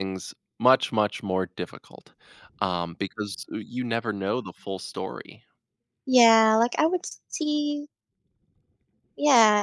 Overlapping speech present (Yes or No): No